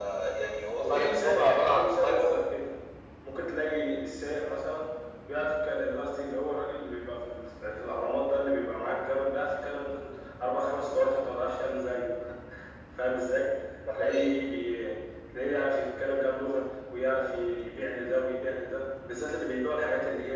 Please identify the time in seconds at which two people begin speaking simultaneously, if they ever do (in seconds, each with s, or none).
0.8 s